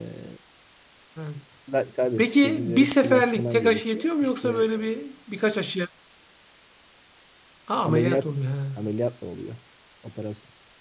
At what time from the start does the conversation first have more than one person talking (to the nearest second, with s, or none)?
2 s